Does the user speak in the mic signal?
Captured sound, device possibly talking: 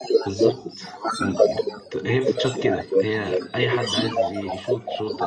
Yes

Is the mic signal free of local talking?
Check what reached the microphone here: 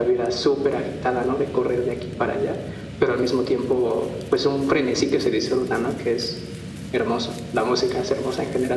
Yes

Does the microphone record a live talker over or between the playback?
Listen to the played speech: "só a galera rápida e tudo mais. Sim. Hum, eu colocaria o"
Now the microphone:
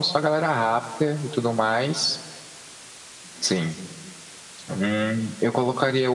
No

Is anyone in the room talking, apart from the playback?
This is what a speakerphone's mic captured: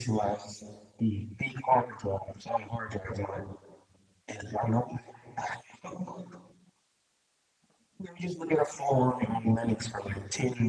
No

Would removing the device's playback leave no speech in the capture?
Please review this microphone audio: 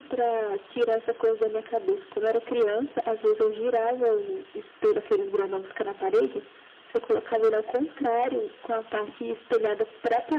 Yes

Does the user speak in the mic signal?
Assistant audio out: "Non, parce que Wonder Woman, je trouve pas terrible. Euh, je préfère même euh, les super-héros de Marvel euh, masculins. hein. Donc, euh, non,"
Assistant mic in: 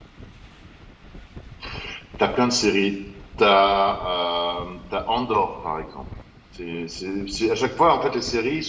Yes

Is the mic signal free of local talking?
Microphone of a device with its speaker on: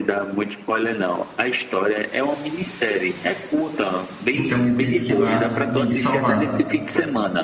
No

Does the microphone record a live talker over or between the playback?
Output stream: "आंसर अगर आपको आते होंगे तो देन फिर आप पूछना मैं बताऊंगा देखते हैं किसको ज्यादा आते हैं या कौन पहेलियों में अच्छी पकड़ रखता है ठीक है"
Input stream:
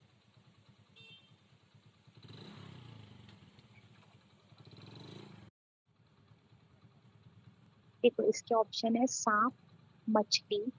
Yes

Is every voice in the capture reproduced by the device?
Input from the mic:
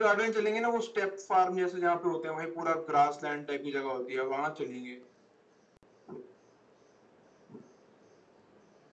Yes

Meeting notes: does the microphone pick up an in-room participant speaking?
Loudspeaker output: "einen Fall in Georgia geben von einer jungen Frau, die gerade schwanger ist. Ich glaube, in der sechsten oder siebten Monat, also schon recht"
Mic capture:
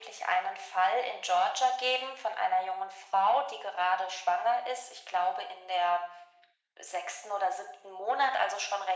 No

